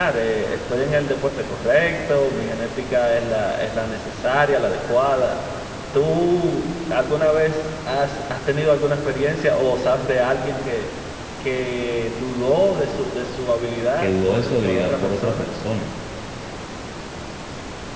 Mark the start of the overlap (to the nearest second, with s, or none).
14 s